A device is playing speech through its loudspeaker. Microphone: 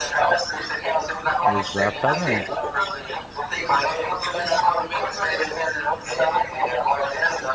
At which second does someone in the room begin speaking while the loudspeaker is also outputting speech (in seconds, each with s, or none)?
1.5 s